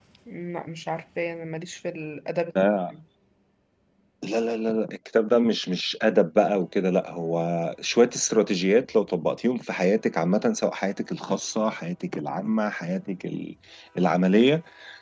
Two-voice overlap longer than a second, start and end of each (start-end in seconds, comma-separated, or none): none